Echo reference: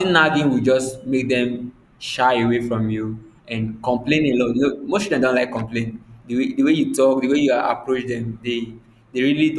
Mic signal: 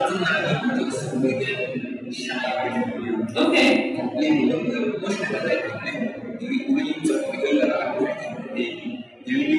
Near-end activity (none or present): present